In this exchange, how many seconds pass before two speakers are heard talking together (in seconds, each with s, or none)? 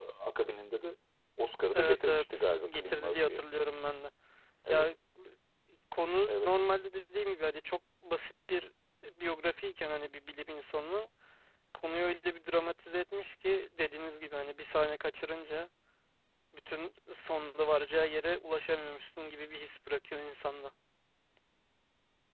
1.7 s